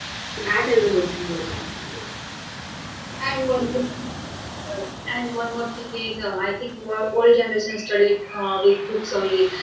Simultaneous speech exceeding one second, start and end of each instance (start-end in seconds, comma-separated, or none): none